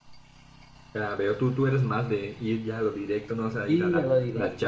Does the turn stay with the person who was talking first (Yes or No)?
No